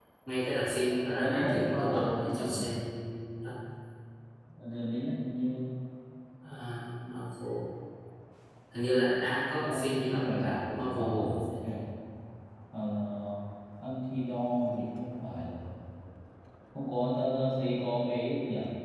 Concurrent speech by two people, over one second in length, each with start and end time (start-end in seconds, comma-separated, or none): 0.8-2.6, 9.6-11.2